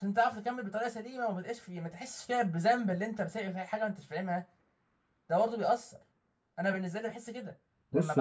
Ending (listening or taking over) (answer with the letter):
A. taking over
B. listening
A